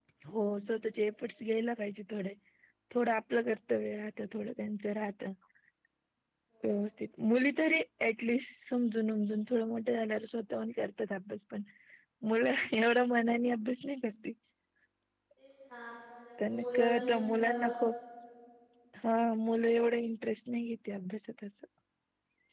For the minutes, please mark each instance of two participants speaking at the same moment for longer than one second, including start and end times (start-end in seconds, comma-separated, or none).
16.5-17.7